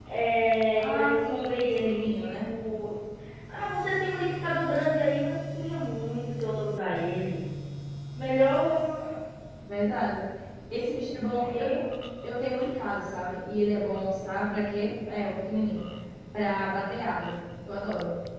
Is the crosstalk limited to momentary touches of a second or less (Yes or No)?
No